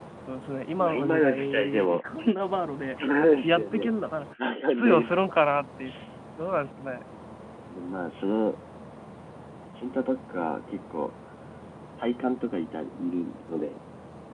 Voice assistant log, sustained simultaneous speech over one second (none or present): present